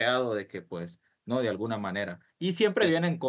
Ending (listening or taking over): listening